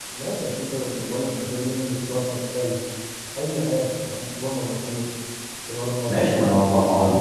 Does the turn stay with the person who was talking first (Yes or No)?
No